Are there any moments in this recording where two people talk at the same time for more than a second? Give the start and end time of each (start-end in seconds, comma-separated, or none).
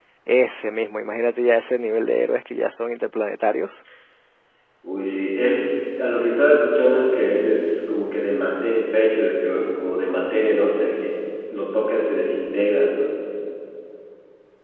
none